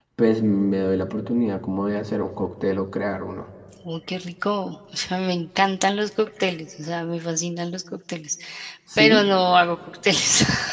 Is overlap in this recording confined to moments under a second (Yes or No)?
Yes